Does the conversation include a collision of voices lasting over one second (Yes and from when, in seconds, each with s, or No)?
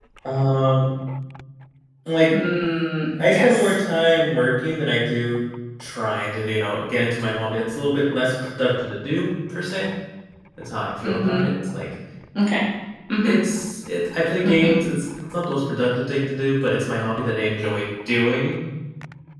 No